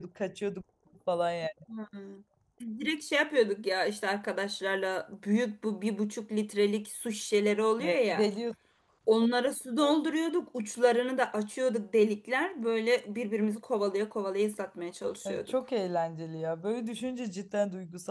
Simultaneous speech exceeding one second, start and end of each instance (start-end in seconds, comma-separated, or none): none